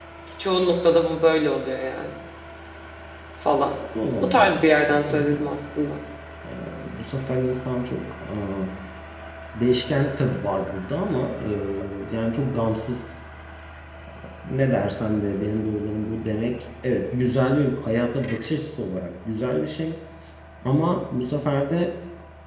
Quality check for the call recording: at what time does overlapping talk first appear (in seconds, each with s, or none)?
4.2 s